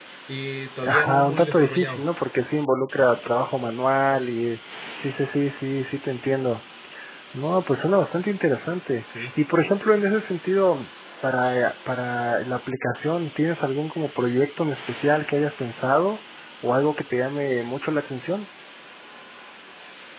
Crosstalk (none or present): present